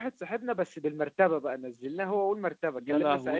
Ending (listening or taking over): listening